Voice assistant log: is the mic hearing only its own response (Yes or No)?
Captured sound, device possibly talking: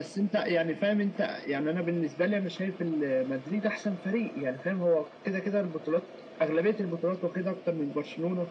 Yes